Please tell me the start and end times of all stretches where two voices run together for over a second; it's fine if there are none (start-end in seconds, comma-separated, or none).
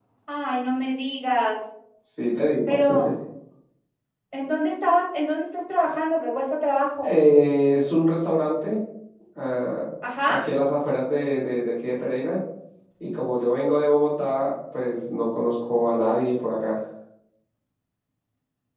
none